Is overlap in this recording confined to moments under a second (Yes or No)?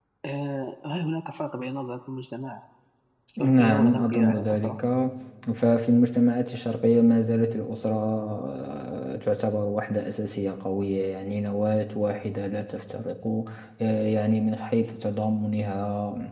No